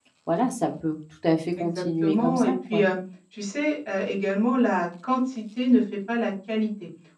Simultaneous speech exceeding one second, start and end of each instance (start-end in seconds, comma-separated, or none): 1.6-2.8